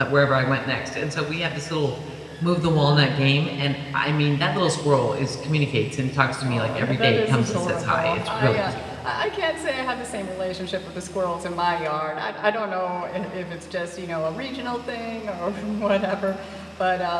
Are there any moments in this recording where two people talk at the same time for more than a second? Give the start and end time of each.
6.4-8.7

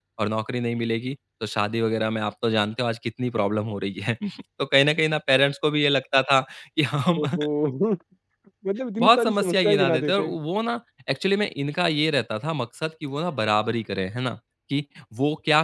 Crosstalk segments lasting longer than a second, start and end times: 9.0-10.3

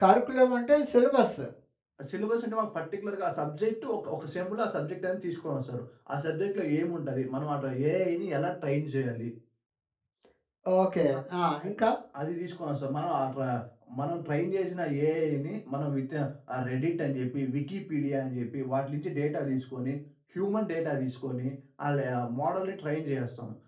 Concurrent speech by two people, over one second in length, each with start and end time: none

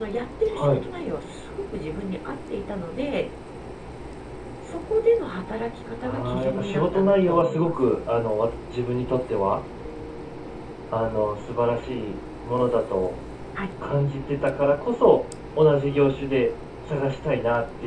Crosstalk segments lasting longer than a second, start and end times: 6.0-7.7

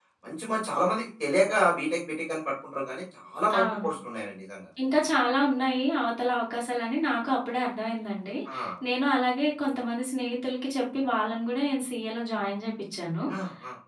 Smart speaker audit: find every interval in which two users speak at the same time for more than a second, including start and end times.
none

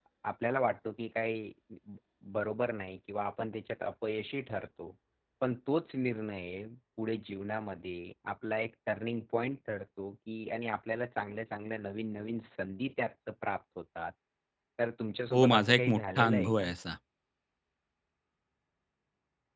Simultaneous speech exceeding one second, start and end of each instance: 15.3-16.7

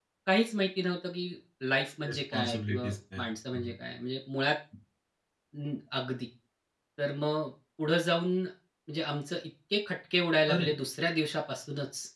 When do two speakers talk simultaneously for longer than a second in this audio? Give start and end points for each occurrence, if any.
2.1-3.7

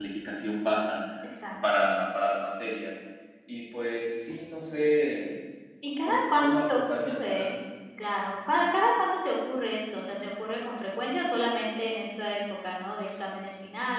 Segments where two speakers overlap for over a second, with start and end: 6.0-7.5

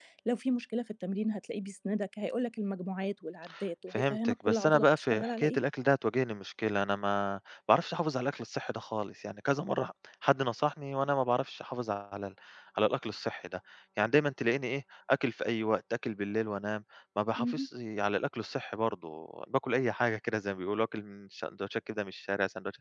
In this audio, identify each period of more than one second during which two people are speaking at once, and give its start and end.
3.9-5.6

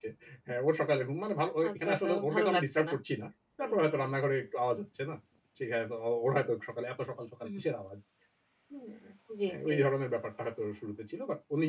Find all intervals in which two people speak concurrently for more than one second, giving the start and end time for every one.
1.7-2.9

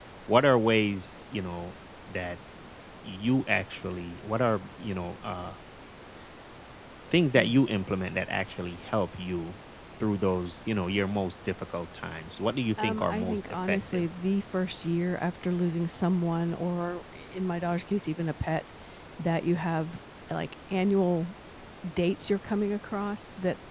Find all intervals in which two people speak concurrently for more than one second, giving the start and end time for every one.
12.8-14.1

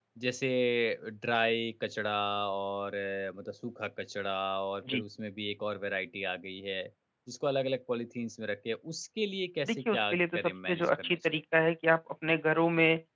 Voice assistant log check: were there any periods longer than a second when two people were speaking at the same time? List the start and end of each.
9.7-11.2

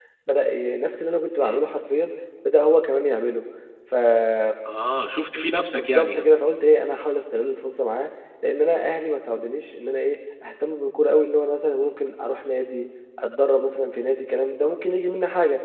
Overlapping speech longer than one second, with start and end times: none

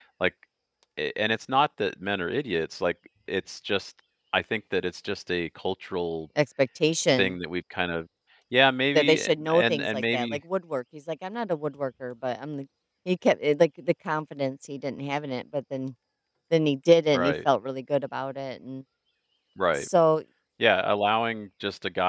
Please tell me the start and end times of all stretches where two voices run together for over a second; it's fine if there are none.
9.0-10.4

